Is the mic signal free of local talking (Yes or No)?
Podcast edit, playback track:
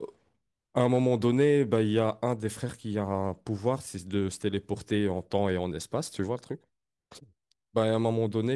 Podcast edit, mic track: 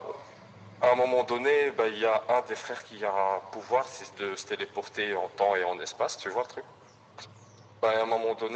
Yes